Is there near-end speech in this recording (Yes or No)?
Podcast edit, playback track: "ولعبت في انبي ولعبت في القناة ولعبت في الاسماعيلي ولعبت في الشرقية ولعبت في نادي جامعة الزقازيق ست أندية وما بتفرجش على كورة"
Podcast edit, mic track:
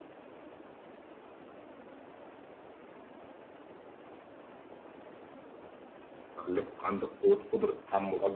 Yes